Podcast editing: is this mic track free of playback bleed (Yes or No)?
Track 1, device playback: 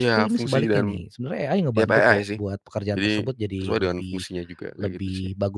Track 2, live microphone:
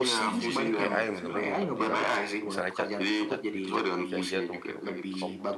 No